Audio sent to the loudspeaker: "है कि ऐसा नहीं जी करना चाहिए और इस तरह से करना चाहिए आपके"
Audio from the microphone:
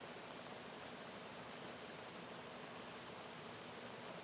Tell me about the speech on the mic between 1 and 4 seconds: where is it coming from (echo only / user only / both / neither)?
neither